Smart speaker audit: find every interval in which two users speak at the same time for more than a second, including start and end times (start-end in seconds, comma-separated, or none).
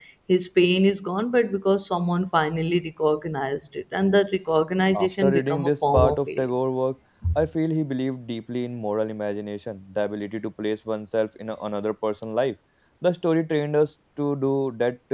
4.9-6.5